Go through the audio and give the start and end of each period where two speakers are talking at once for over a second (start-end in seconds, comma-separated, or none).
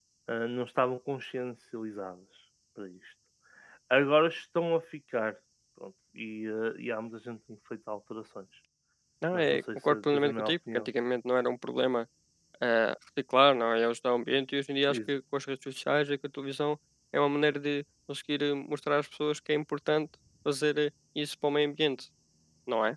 9.3-10.9